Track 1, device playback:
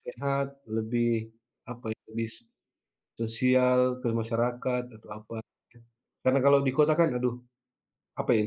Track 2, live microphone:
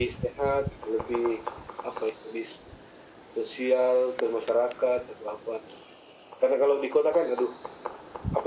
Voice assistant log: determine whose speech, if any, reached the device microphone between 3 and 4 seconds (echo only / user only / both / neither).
echo only